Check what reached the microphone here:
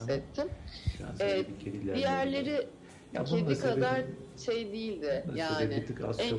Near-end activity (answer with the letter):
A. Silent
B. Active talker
B